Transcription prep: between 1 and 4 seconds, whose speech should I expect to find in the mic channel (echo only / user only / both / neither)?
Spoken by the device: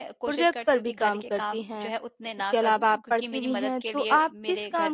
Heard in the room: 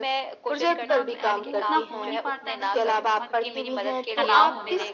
both